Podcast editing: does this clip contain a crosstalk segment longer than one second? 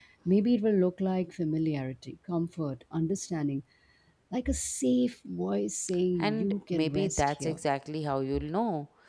Yes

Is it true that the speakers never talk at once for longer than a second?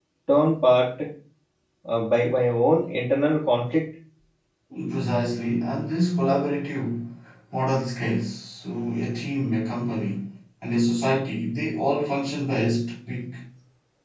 Yes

